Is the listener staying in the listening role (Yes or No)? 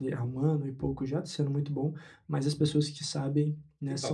No